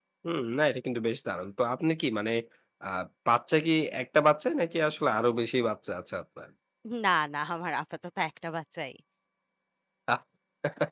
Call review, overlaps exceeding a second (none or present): none